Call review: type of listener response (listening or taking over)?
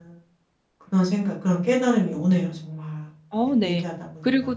taking over